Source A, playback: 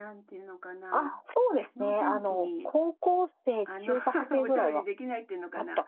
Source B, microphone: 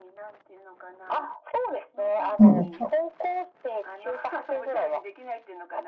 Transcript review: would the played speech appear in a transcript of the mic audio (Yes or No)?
Yes